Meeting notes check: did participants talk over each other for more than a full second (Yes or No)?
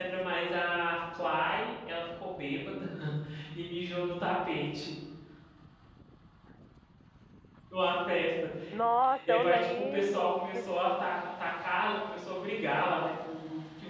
Yes